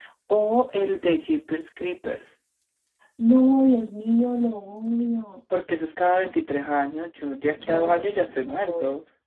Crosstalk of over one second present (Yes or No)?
Yes